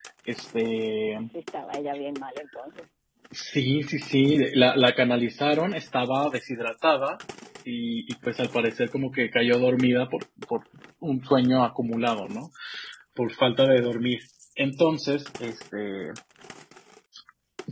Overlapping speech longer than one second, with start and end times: none

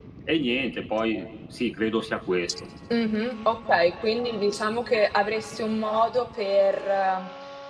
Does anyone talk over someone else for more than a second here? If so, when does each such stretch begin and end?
none

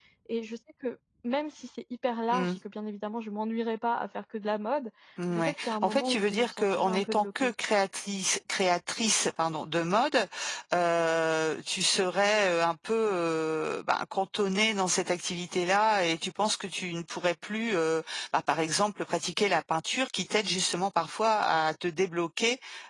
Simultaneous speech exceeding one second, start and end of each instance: 5.3-7.5

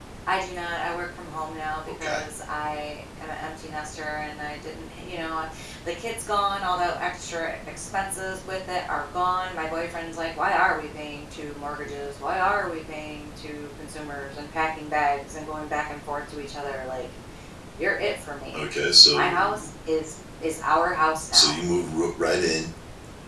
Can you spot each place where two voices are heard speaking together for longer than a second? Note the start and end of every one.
none

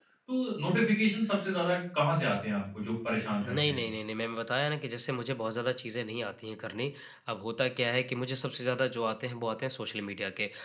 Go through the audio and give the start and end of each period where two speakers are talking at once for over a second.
none

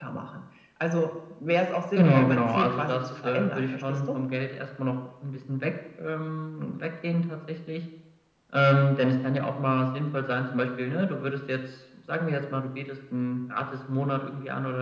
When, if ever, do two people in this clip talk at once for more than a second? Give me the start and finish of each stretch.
2.0-4.2

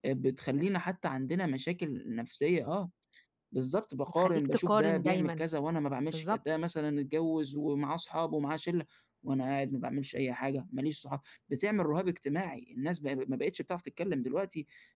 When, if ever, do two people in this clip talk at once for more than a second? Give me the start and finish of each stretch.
4.1-5.4

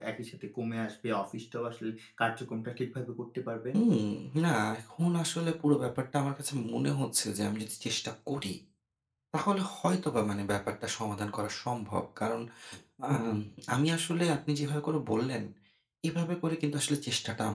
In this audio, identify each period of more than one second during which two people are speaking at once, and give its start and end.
none

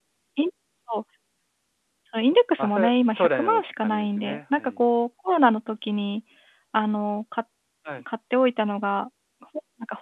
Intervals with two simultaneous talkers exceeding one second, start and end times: 2.6-4.8

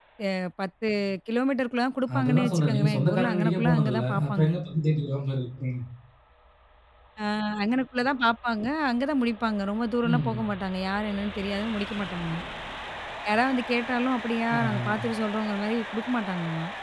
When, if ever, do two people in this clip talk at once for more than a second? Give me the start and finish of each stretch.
2.2-4.5

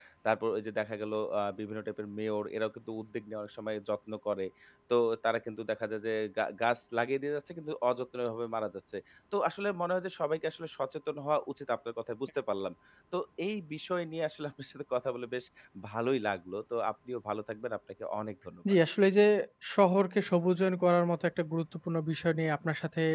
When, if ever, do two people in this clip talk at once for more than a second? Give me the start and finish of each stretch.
none

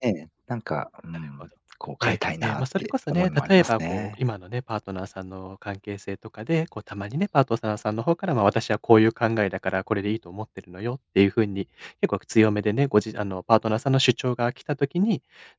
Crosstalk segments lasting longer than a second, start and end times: 2.0-4.2

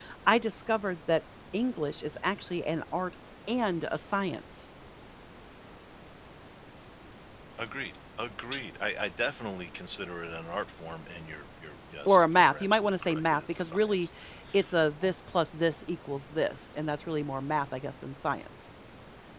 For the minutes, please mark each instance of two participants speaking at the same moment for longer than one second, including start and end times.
12.1-14.1

